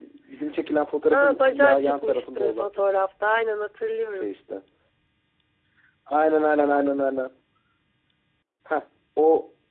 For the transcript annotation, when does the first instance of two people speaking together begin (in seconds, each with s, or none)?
1.1 s